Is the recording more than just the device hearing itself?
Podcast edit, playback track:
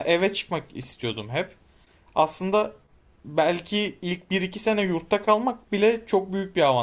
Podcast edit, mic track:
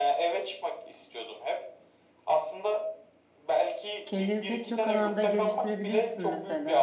Yes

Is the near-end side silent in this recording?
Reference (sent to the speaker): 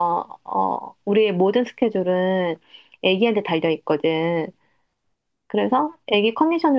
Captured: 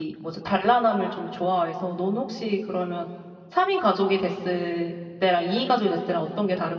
No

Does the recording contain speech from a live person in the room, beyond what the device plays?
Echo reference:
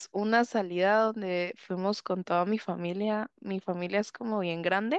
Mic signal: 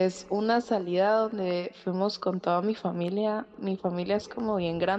No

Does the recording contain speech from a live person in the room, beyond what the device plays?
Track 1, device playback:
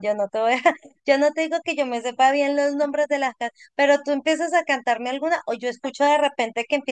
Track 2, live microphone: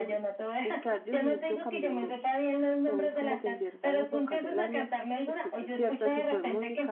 Yes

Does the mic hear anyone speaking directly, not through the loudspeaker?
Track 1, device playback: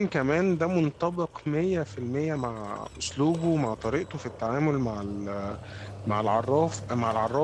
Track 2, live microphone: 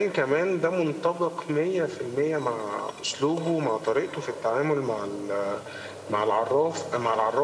No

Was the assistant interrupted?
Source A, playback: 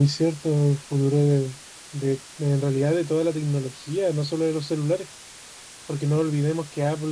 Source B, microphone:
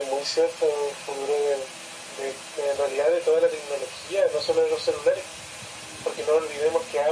No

